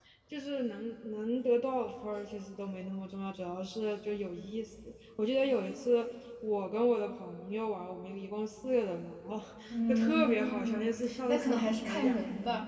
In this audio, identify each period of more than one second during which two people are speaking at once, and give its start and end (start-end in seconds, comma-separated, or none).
9.9-12.2